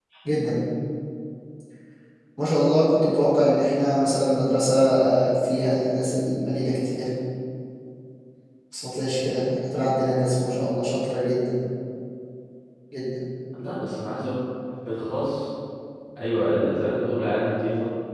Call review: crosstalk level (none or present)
none